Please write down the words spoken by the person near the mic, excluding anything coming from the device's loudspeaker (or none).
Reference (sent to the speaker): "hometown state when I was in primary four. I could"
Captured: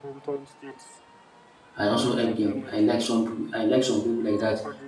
i also help them i like some peo- i like some people like that